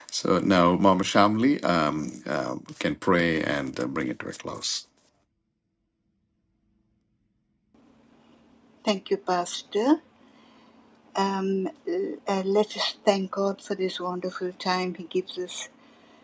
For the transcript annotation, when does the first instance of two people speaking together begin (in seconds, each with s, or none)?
none